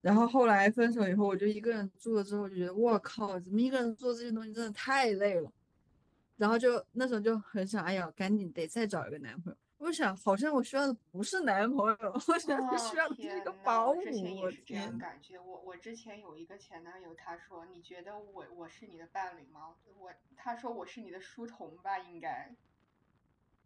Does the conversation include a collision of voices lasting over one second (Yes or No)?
Yes